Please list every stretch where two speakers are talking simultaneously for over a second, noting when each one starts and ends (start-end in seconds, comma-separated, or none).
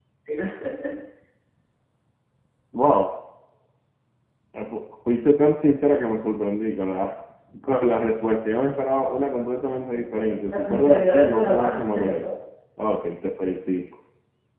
10.5-12.2